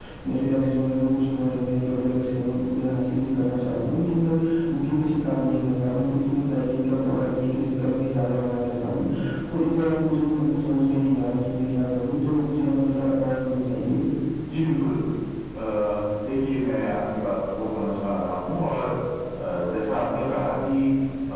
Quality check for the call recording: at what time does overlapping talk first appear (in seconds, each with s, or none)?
none